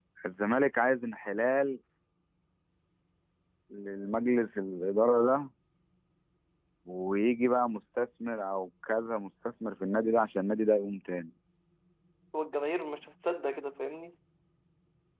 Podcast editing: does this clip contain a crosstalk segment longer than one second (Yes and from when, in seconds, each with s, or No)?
No